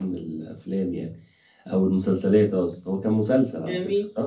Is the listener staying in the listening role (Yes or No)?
No